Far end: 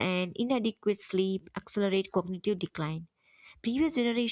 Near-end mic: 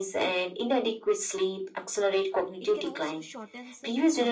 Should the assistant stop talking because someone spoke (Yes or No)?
Yes